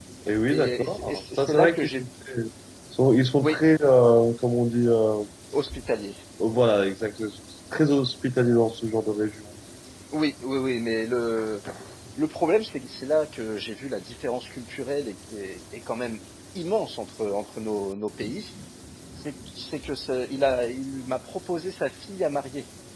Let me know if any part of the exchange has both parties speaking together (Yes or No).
Yes